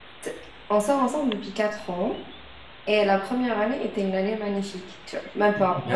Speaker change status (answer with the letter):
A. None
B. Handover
B